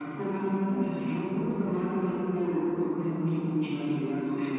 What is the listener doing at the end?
taking over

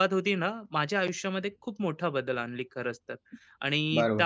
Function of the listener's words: taking over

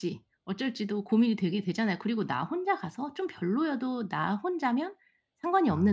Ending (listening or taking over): listening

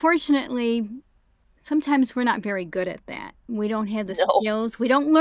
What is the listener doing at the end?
listening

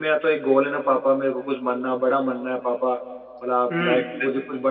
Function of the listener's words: listening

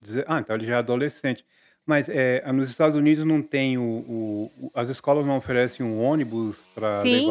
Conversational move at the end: taking over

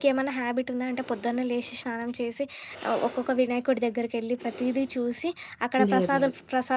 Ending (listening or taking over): listening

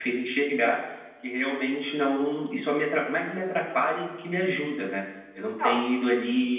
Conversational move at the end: listening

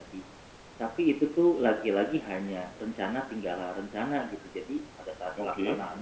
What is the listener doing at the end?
listening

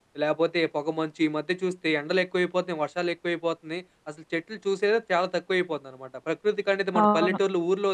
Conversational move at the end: listening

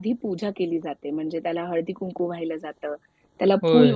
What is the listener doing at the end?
listening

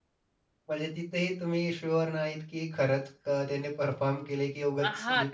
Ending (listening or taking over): taking over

